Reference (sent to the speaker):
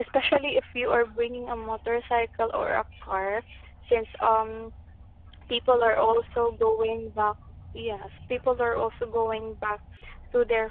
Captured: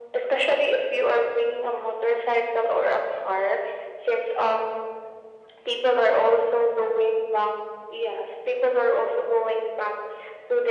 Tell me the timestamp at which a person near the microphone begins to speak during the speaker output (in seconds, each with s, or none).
none